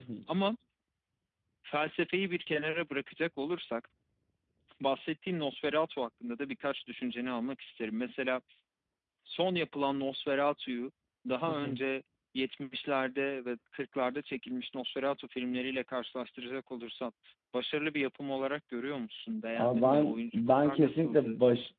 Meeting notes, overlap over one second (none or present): present